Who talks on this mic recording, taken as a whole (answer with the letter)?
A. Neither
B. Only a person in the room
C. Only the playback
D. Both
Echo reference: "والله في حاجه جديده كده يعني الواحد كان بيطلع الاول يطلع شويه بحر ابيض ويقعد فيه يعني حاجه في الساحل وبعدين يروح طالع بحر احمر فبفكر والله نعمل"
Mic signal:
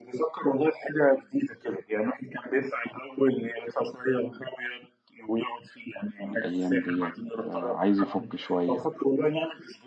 D